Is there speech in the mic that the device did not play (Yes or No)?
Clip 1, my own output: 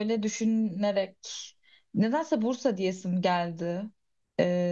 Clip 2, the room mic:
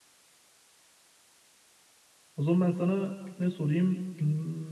Yes